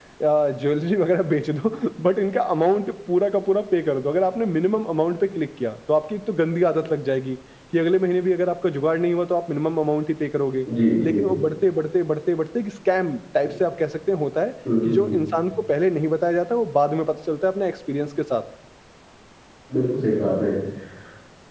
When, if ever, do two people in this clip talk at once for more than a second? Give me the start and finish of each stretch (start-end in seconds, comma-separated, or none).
none